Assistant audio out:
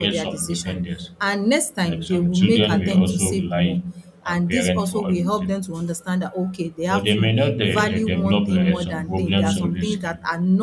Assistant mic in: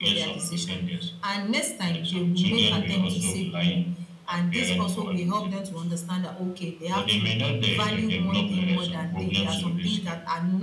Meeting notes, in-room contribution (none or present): none